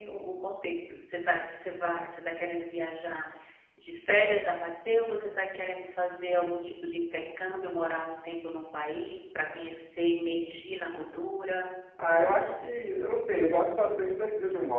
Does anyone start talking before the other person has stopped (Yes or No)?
No